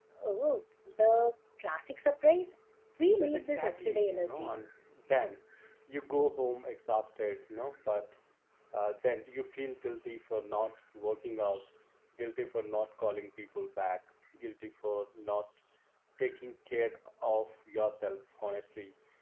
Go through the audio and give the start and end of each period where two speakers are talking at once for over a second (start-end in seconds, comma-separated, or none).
3.2-4.6